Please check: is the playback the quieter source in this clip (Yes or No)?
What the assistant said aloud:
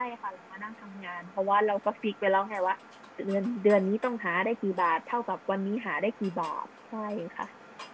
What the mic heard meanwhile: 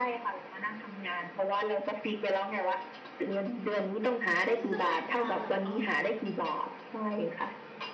No